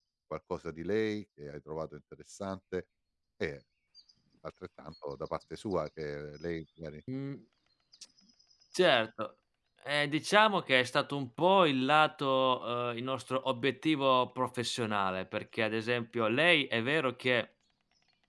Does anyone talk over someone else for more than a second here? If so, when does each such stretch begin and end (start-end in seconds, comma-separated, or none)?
none